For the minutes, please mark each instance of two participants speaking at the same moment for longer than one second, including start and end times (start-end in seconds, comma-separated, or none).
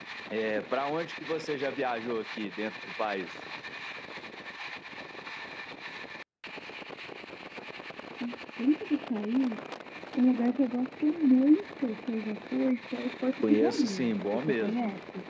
13.4-14.8